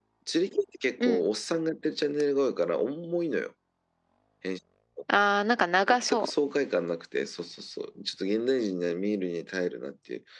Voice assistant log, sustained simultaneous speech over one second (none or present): none